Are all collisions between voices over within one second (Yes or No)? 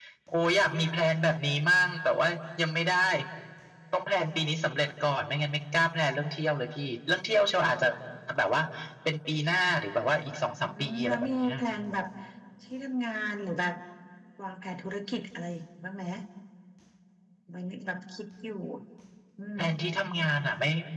No